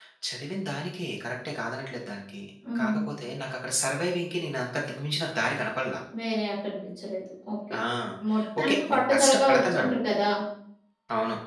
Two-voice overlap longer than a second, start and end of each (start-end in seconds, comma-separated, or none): 8.6-9.9